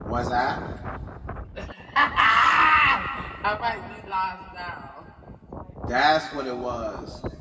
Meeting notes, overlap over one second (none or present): none